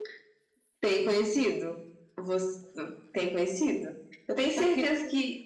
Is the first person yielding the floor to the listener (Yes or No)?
No